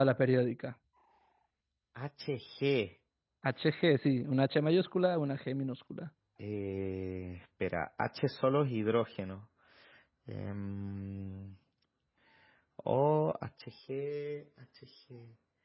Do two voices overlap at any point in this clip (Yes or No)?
No